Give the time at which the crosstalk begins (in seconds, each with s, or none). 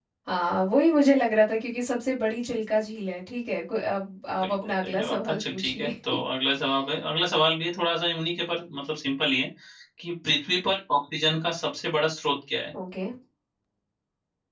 4.4 s